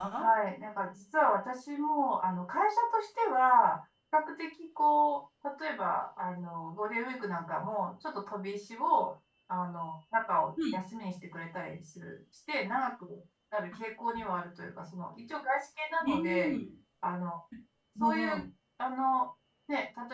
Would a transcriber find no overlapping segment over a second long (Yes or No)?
Yes